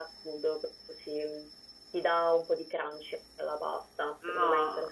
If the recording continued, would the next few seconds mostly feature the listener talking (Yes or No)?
Yes